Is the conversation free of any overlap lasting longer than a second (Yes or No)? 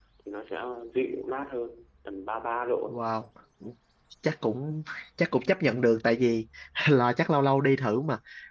Yes